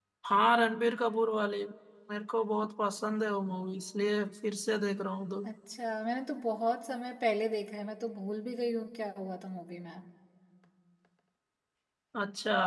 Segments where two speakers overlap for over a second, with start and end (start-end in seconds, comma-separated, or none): none